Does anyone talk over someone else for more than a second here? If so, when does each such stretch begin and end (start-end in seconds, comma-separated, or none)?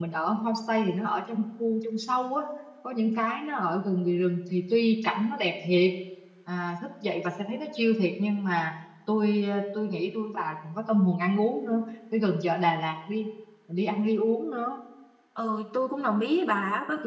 none